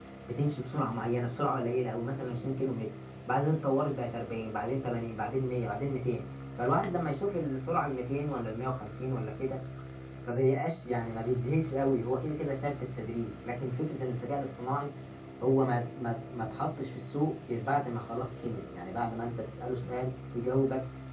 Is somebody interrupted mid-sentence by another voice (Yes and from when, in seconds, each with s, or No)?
No